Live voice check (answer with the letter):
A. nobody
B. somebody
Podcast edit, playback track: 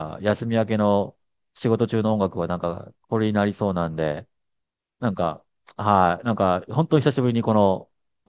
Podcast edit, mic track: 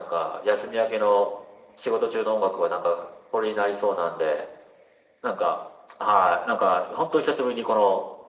A